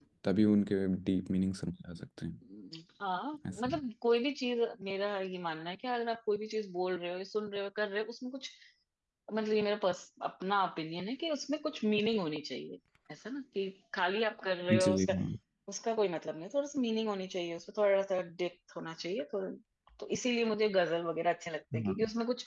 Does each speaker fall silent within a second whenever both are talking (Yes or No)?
Yes